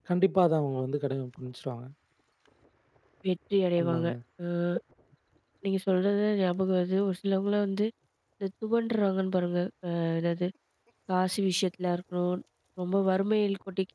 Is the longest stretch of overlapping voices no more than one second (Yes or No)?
Yes